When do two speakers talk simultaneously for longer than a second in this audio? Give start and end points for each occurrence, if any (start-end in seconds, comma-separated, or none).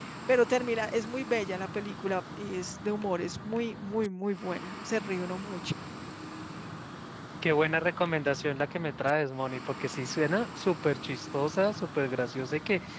none